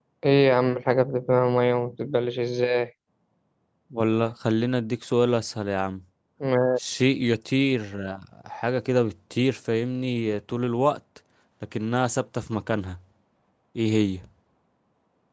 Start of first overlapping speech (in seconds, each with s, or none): none